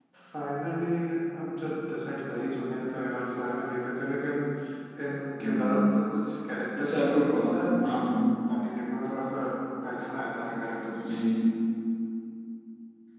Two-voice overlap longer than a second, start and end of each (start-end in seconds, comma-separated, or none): 6.8-8.0